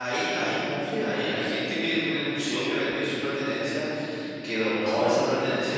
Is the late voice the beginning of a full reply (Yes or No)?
No